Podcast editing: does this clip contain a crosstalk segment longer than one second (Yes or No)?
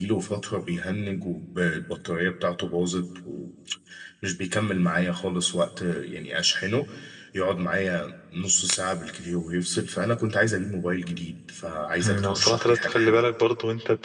Yes